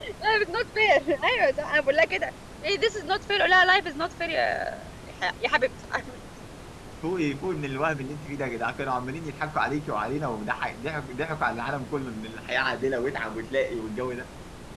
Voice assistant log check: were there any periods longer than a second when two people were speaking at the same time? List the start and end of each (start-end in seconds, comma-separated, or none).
none